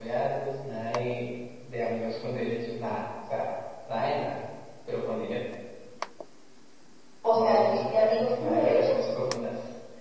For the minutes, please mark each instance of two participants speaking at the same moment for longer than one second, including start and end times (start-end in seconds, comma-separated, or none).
7.3-9.0